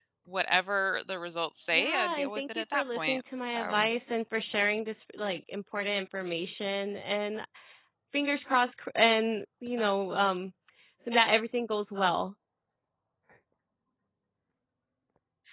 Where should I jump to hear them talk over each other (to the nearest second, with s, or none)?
2 s